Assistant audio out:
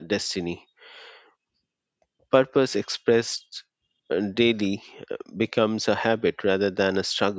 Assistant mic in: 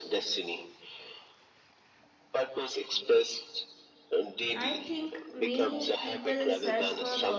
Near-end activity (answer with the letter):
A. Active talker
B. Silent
A